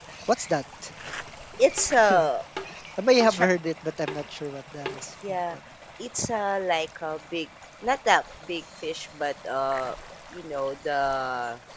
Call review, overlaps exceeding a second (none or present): none